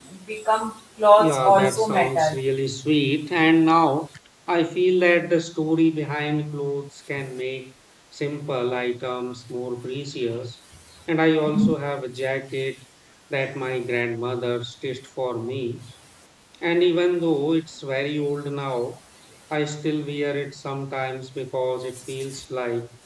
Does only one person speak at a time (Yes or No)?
No